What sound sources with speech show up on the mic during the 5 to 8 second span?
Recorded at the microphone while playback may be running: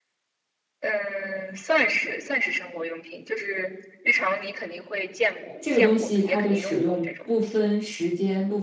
both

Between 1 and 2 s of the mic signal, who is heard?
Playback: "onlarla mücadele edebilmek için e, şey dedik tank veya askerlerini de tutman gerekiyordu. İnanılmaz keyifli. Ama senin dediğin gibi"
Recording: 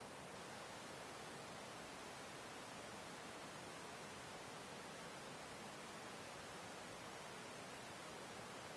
neither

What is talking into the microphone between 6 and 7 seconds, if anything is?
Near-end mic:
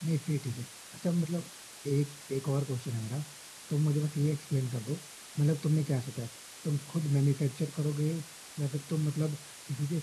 user only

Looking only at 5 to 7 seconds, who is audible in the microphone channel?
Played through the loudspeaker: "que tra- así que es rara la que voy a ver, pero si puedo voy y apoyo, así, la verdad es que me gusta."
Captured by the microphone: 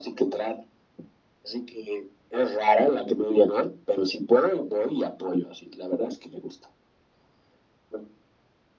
echo only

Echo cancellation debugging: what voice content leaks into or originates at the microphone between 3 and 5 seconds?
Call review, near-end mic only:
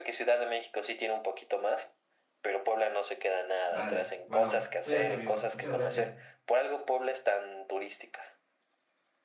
both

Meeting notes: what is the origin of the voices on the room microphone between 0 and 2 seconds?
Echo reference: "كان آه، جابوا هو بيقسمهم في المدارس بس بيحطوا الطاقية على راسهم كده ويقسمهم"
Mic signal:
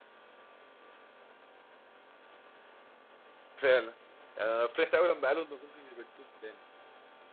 neither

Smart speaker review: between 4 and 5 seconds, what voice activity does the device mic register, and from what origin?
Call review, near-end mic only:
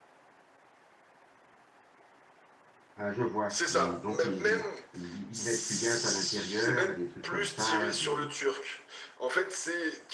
both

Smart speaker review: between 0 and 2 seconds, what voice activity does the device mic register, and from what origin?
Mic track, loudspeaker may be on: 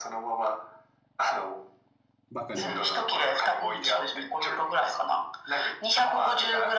echo only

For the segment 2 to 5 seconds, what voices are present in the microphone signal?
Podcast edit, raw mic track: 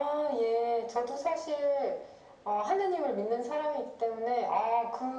echo only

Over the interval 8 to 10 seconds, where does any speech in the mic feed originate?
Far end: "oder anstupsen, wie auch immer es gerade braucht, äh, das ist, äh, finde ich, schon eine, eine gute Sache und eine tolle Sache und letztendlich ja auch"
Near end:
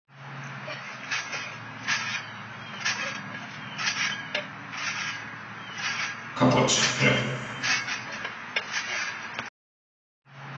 neither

